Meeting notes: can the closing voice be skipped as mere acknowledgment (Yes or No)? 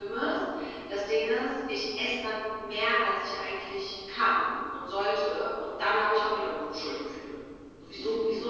Yes